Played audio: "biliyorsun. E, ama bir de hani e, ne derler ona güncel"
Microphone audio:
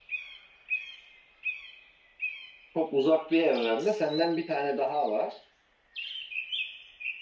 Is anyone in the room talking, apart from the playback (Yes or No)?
Yes